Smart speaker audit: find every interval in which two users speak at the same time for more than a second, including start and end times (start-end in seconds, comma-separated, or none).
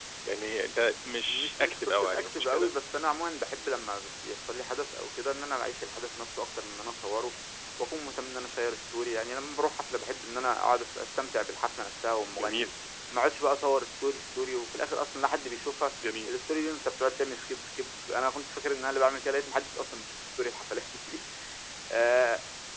1.3-2.7